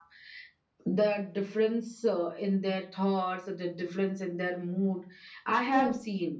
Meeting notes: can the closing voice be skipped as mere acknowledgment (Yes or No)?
No